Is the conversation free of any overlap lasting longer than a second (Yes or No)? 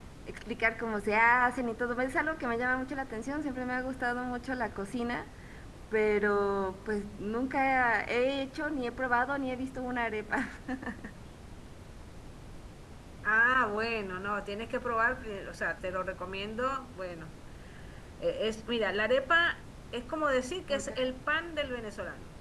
Yes